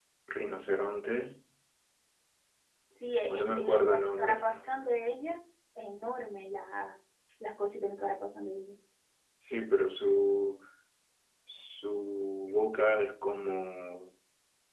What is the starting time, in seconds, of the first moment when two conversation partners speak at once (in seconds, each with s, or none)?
3.3 s